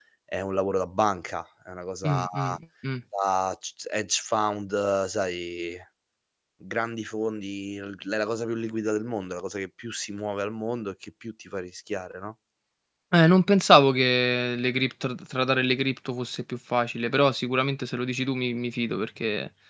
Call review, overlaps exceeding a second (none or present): none